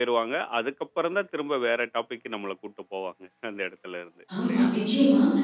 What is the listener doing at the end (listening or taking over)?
taking over